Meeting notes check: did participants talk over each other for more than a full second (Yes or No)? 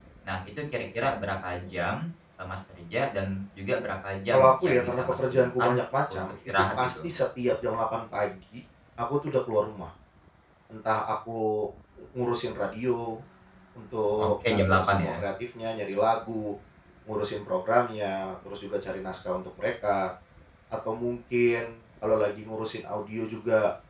Yes